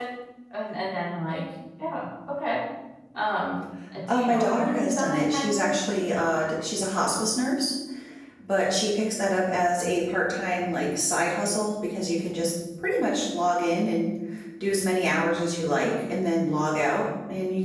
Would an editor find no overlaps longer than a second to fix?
No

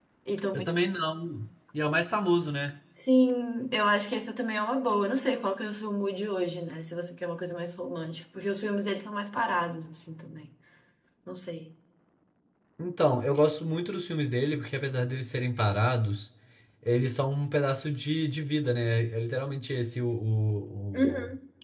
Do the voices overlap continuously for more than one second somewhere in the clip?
No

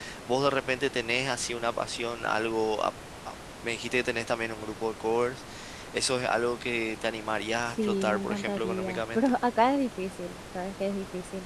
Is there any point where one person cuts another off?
Yes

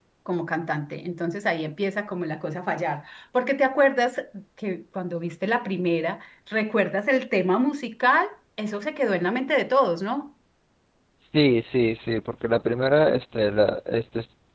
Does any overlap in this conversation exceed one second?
No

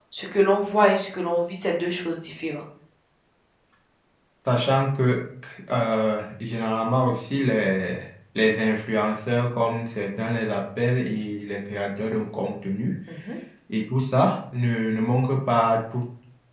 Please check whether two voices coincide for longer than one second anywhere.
No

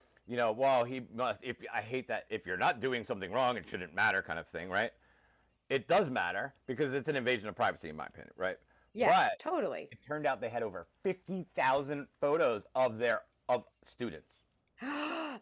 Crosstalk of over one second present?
No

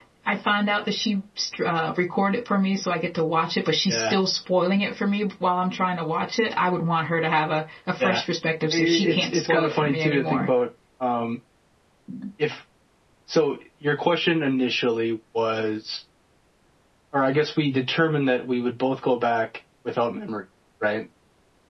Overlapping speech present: Yes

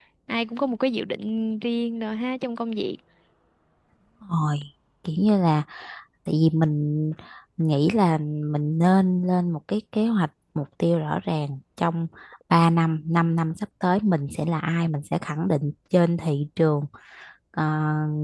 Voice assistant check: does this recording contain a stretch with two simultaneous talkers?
No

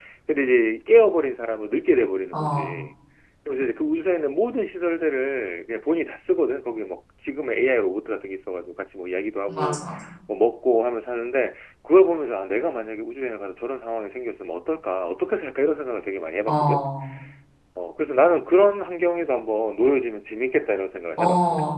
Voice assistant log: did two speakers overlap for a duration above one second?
No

